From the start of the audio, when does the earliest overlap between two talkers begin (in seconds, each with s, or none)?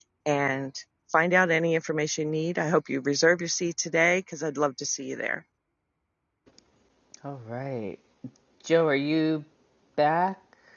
none